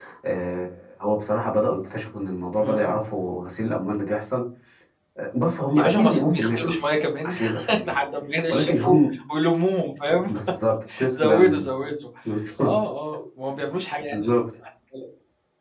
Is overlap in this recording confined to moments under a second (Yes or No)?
No